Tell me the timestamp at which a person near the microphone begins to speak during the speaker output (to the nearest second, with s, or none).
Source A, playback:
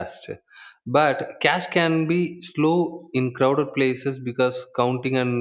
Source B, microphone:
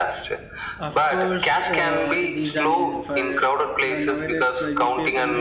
1 s